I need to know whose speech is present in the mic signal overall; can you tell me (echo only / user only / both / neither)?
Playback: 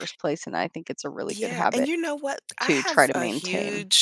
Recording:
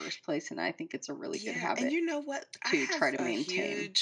echo only